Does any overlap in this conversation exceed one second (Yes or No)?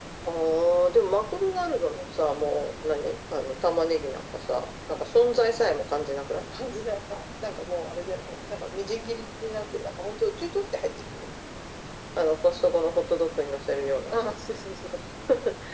No